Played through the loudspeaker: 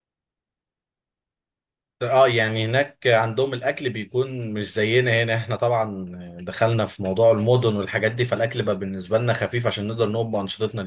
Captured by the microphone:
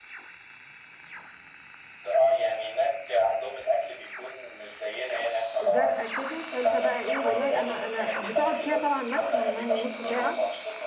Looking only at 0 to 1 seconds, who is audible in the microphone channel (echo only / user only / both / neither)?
neither